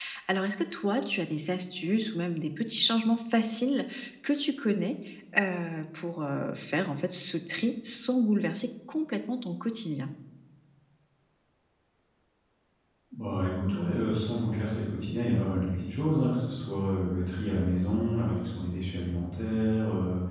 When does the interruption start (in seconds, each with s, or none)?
none